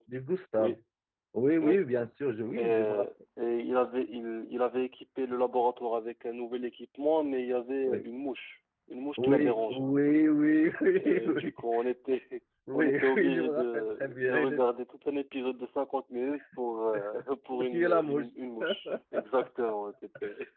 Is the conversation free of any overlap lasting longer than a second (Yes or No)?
No